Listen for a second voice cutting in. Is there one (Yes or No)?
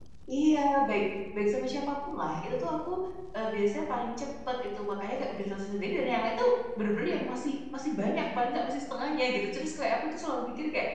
No